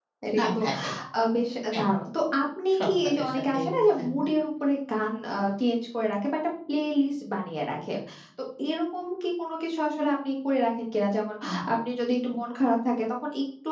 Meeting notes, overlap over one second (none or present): present